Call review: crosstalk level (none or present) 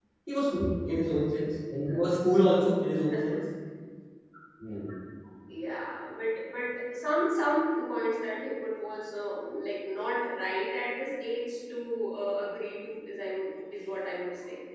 none